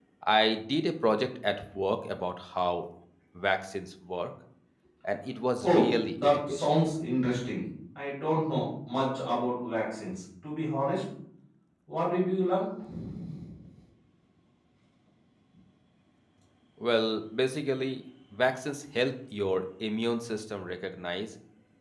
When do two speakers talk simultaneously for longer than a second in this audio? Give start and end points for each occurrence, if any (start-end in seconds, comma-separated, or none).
5.6-6.8